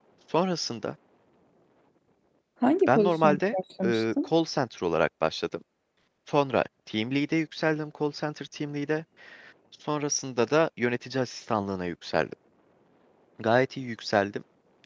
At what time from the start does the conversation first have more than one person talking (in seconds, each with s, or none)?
2.9 s